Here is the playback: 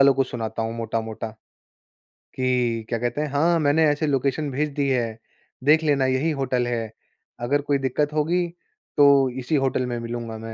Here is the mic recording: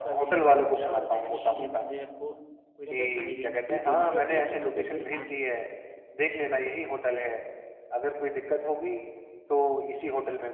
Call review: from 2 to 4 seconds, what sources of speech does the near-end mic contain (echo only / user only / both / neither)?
both